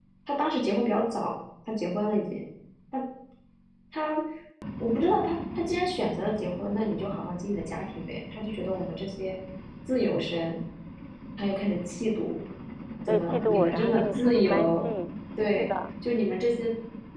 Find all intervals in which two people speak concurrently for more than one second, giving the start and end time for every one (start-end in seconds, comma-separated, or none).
13.1-14.8